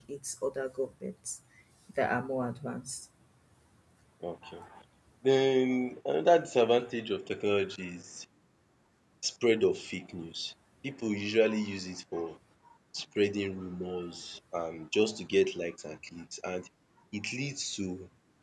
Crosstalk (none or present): none